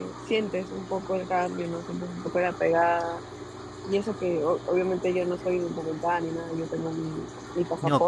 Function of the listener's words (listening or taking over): listening